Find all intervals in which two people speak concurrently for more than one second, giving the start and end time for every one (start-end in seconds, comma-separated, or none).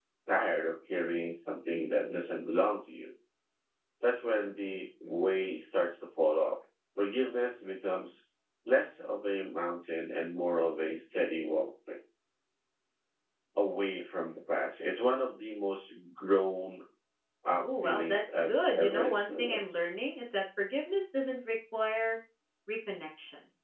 17.5-19.9